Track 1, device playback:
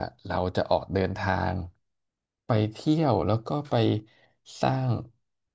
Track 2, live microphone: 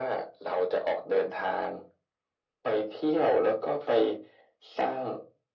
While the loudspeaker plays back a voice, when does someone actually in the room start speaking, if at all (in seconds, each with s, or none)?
none